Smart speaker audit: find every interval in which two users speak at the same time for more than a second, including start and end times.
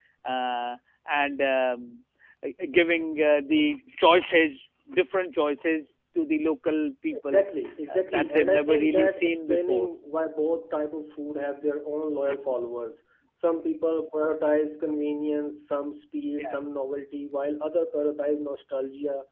7.9-9.9

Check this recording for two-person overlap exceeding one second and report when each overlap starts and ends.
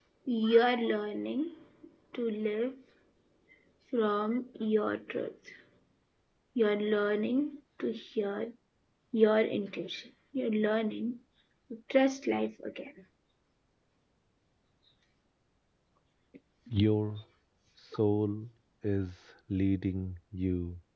none

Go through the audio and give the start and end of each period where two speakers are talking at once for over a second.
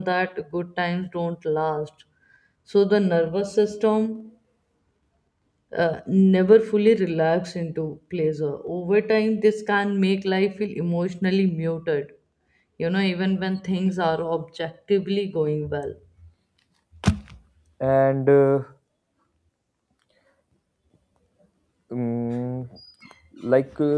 none

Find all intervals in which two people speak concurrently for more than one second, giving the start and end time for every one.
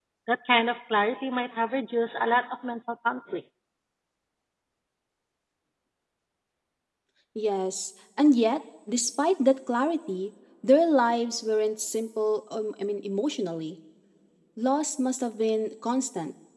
none

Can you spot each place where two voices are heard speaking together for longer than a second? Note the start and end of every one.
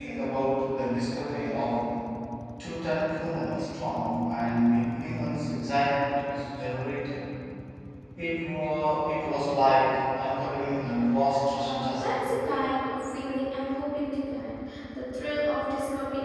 none

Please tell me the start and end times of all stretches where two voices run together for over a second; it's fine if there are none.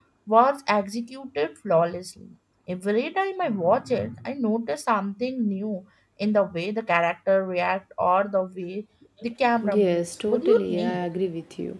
9.7-11.0

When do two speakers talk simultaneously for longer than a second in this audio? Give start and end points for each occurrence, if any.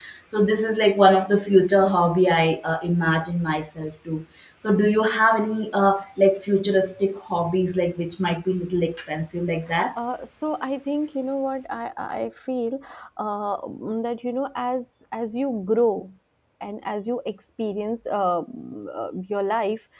none

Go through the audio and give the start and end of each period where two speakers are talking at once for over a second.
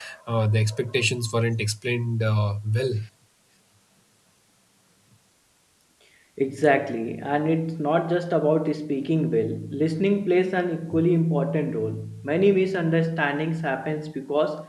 none

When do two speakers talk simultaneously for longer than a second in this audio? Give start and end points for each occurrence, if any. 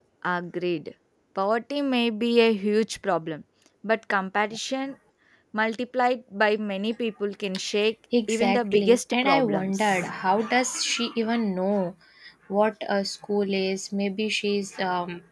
8.3-10.0

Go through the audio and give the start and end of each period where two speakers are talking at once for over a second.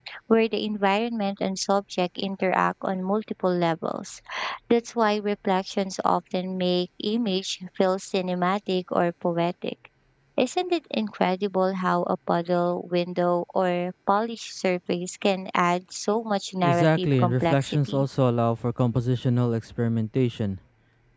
16.6-18.0

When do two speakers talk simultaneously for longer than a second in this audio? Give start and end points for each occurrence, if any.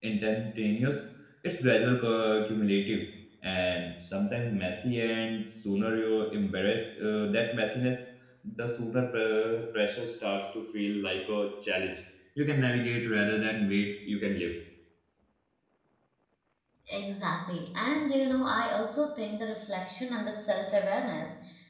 none

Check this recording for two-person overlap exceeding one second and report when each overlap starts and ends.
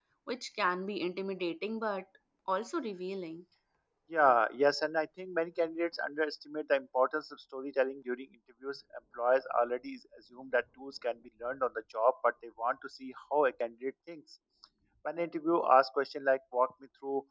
none

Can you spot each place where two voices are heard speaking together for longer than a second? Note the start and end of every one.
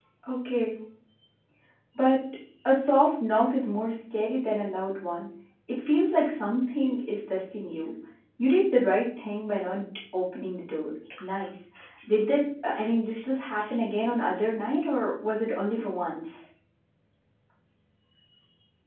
none

